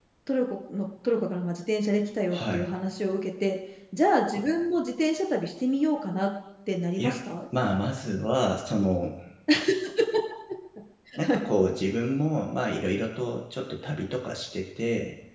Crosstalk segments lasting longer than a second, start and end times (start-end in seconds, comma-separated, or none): none